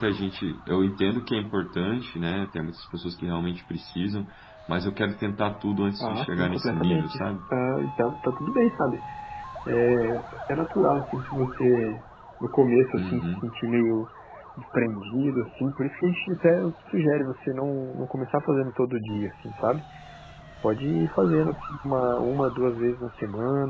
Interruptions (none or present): present